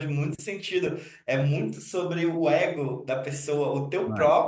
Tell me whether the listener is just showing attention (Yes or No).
Yes